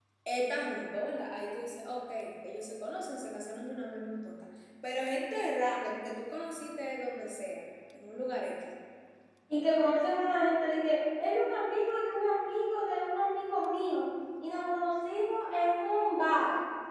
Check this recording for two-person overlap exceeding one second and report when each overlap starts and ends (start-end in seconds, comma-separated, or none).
none